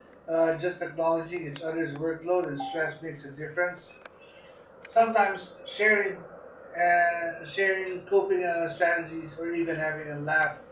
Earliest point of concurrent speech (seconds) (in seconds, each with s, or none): none